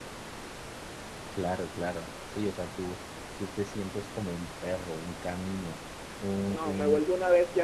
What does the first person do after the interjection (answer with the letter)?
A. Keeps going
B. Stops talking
B